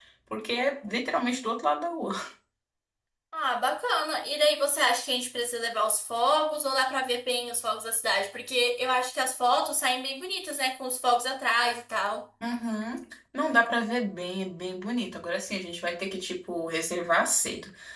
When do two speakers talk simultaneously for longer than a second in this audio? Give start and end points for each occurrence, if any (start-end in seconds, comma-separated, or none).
none